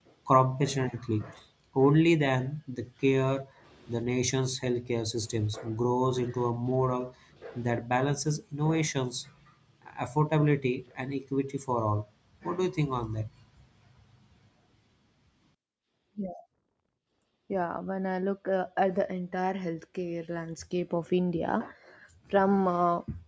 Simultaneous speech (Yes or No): No